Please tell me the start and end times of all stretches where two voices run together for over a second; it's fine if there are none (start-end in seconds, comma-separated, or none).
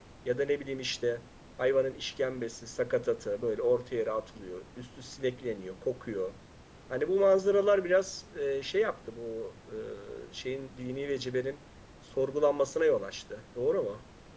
none